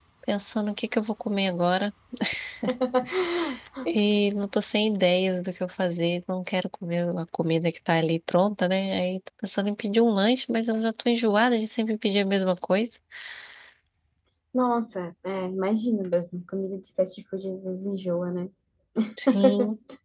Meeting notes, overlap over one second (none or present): none